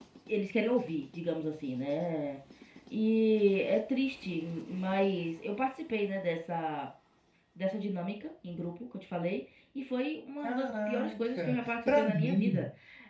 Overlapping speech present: Yes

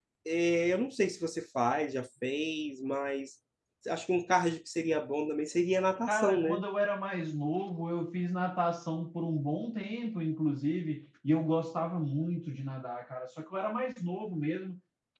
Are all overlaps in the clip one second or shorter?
Yes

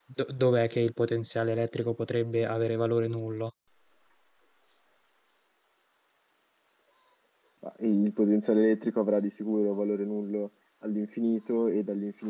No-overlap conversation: Yes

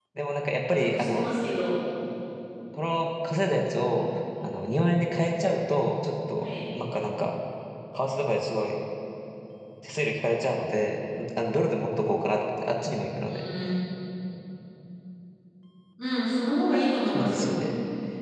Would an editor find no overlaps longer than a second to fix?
Yes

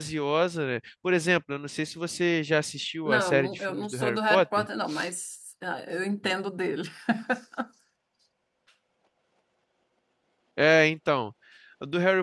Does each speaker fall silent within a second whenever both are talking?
No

